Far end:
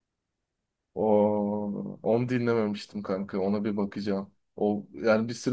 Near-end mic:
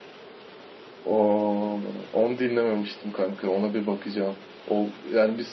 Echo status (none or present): present